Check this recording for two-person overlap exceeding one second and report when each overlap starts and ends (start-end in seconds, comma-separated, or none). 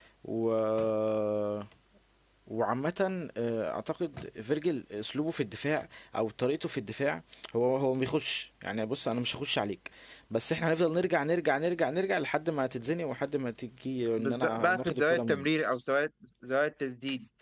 14.2-15.5